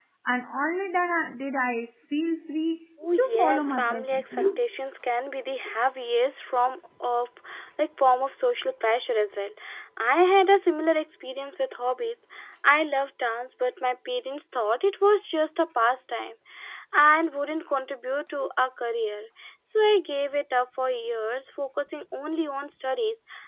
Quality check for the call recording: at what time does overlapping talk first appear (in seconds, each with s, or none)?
3.0 s